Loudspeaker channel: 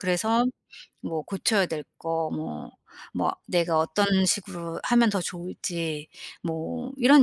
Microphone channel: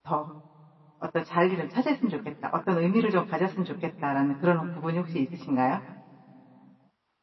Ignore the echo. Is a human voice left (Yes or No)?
Yes